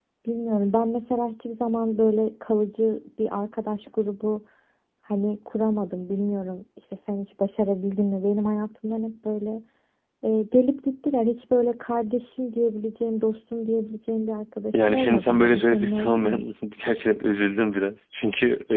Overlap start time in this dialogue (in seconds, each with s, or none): 14.7 s